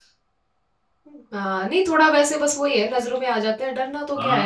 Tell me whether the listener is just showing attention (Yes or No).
No